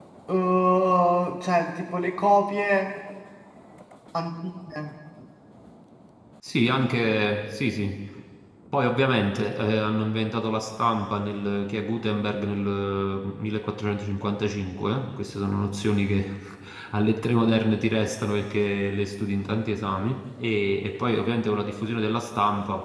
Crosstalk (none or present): none